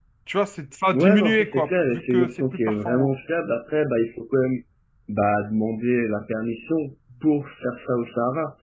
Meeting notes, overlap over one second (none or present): present